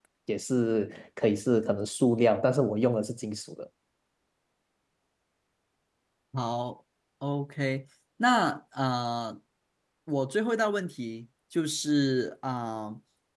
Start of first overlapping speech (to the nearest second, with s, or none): none